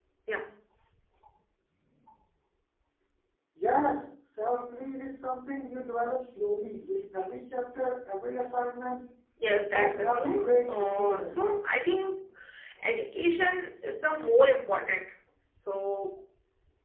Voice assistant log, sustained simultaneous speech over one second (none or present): present